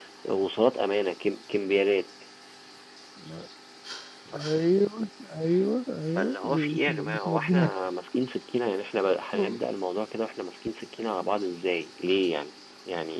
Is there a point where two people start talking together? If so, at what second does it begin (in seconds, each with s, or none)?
6.2 s